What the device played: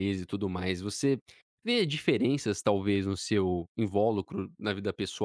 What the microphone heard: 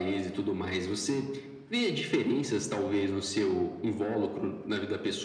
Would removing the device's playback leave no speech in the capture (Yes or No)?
Yes